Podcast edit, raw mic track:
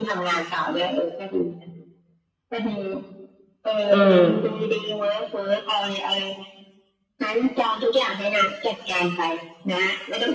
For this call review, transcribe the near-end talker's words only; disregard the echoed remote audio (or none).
อืม